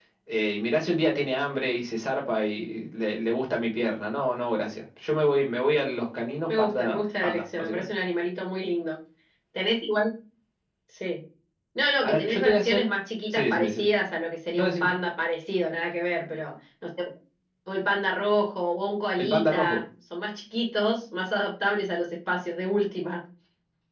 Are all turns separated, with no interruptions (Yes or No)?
No